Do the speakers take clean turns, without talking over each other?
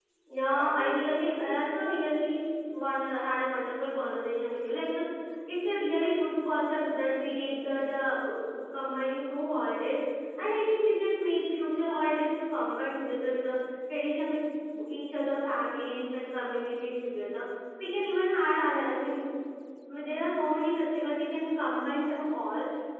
No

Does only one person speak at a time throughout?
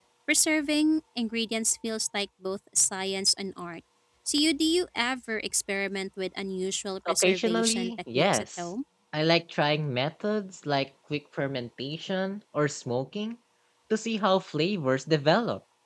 No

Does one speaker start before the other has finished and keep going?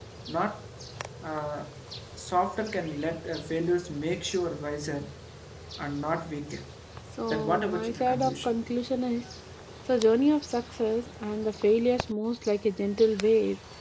Yes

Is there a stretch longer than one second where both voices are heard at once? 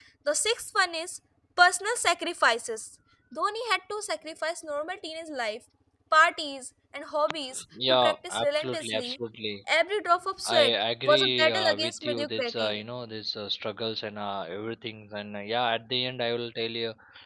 Yes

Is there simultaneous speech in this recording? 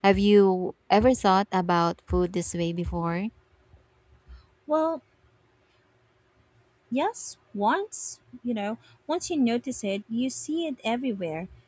No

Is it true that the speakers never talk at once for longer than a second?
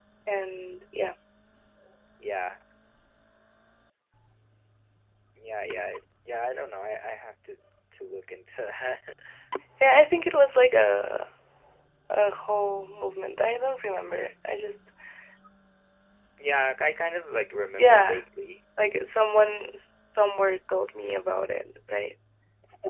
Yes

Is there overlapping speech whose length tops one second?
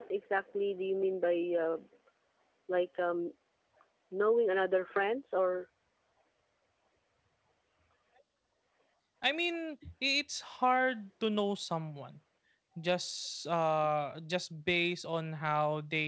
No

